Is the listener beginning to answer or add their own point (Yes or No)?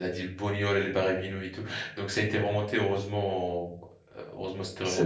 No